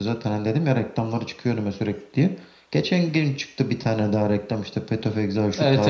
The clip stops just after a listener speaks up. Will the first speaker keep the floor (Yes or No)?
No